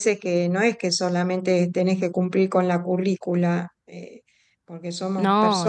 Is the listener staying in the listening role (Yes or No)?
Yes